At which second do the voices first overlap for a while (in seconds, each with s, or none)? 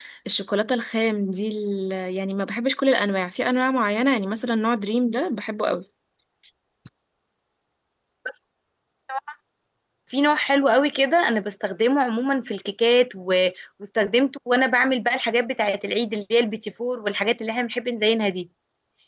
none